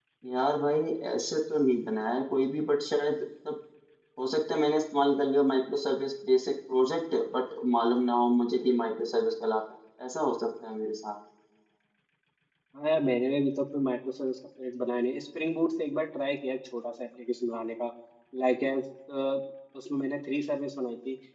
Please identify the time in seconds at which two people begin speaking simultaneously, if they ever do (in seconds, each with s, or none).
none